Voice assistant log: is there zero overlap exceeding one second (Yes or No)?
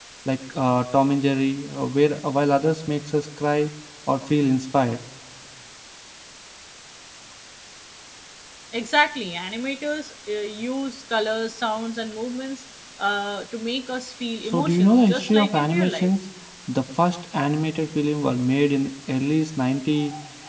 No